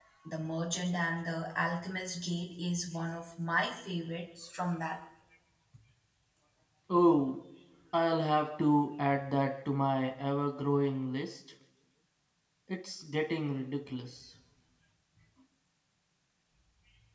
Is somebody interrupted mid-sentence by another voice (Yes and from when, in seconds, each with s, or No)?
No